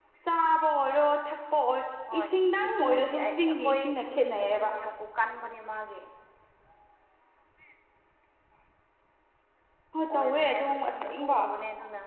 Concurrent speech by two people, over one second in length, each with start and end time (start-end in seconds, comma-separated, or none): 2.7-4.7, 10.1-11.4